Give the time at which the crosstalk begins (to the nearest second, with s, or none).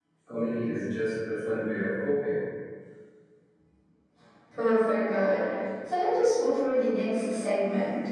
none